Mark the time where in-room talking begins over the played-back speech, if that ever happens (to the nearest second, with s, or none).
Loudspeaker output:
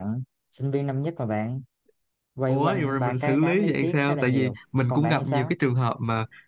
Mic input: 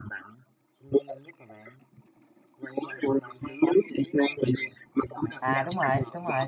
5 s